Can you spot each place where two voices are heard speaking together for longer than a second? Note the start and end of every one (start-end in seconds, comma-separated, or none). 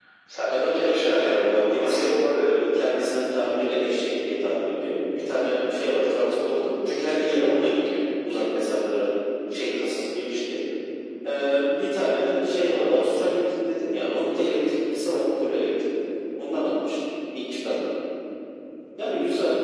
0.5-2.5